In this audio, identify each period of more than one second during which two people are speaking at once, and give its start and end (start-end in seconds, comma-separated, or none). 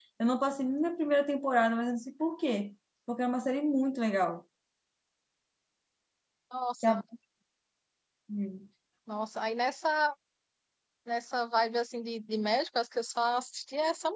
none